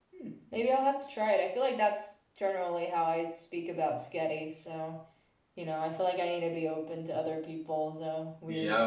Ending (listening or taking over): taking over